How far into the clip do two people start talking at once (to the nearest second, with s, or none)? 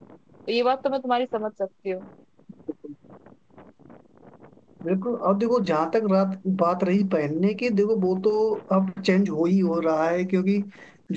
none